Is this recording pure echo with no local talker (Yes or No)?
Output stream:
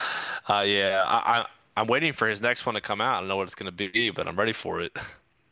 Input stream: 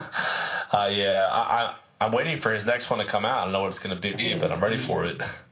No